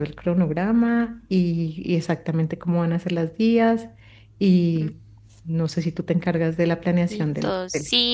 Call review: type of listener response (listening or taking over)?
taking over